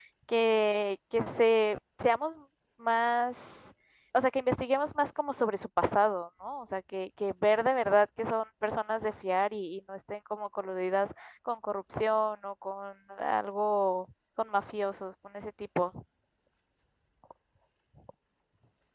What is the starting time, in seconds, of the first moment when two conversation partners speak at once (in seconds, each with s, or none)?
none